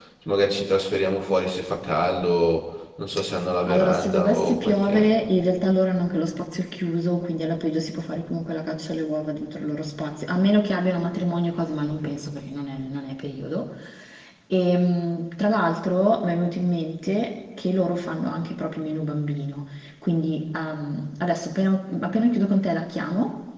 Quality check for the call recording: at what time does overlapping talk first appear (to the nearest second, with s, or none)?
4 s